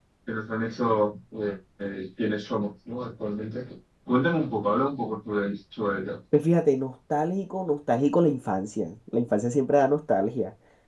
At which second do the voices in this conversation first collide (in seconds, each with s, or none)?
none